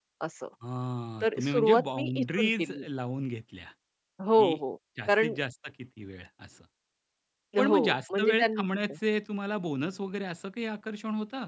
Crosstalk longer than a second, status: present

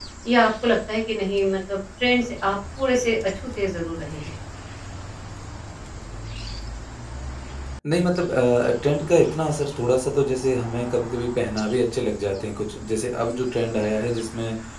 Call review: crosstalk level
none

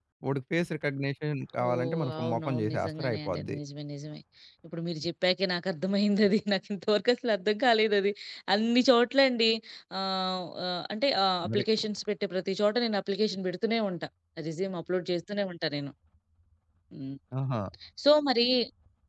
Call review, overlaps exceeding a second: present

